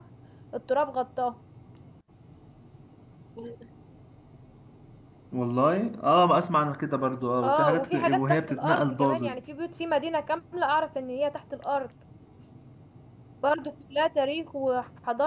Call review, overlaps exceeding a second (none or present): present